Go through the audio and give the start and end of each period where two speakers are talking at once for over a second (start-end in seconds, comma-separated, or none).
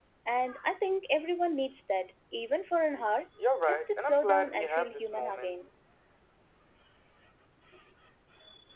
3.6-5.6